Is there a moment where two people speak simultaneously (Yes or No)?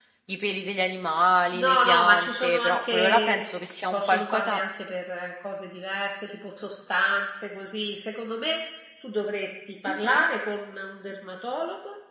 Yes